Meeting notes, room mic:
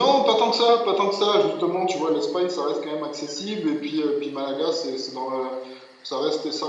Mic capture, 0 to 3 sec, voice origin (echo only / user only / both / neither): echo only